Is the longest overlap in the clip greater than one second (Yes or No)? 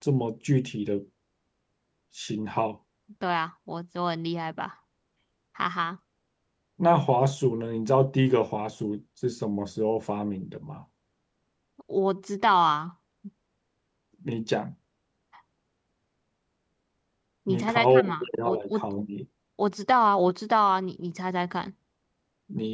Yes